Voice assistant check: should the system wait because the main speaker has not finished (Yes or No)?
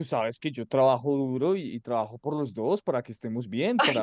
No